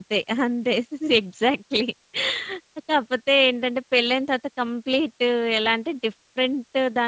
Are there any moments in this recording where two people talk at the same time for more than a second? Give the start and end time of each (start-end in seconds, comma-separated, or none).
none